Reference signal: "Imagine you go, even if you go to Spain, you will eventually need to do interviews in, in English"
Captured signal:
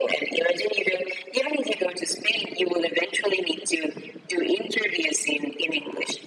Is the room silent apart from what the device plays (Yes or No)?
Yes